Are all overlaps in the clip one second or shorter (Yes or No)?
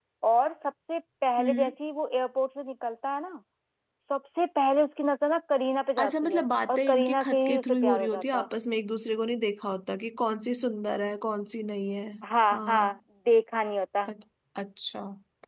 No